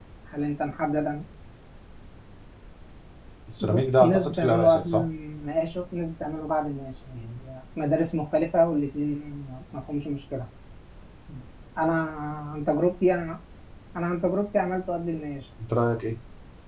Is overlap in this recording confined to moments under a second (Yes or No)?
No